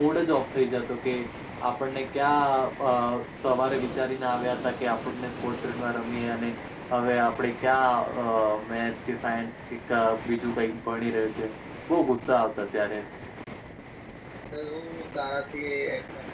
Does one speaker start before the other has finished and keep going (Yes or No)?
No